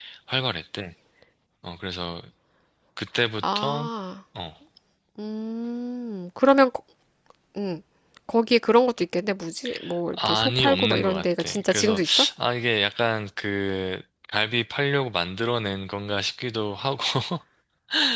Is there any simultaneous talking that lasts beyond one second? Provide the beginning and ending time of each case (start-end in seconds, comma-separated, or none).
10.1-12.0